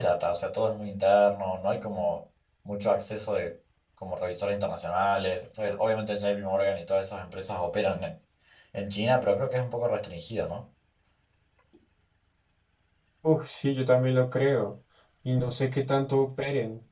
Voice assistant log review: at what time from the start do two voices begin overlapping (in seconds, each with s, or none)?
none